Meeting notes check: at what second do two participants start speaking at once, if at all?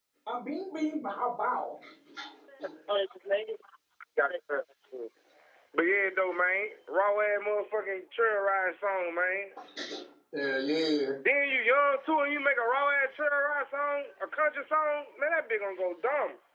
none

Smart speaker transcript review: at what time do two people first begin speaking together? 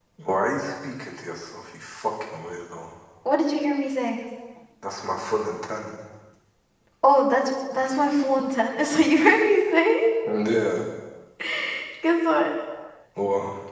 none

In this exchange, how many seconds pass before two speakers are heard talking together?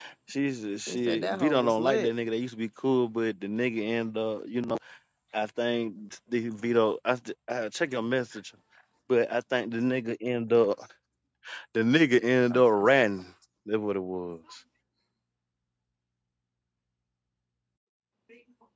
0.9 s

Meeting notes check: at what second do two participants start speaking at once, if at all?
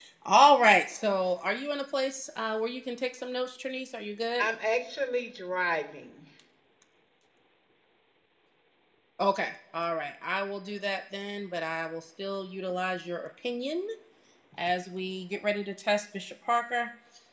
none

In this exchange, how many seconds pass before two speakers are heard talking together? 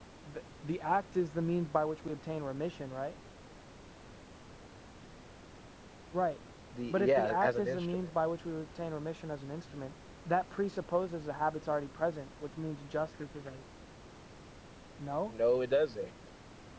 6.9 s

